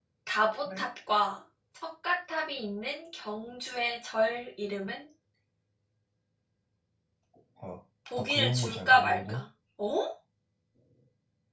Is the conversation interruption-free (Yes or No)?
No